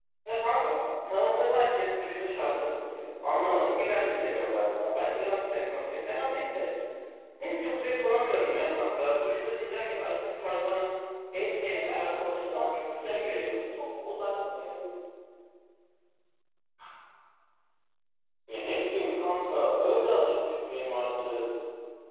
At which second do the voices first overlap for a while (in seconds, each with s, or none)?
11.7 s